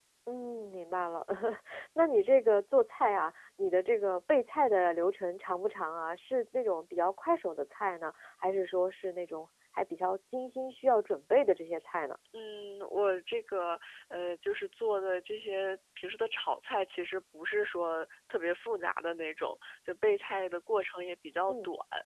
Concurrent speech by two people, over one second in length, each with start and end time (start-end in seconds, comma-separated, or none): none